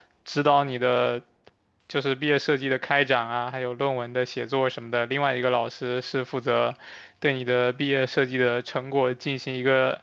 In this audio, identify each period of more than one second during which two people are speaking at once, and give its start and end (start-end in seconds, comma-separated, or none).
none